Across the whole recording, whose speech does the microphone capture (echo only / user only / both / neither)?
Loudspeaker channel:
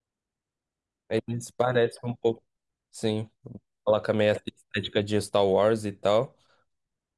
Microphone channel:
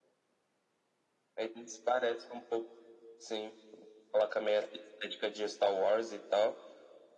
echo only